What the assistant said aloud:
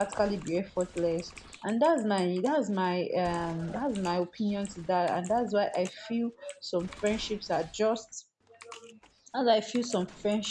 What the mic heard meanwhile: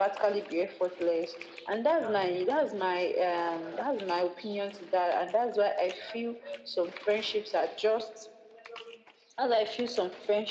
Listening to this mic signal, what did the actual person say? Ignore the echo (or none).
They can even predict